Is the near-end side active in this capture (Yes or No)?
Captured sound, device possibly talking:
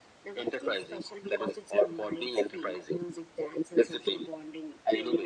No